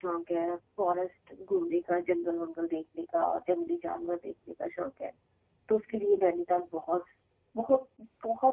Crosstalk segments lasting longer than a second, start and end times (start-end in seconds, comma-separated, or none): none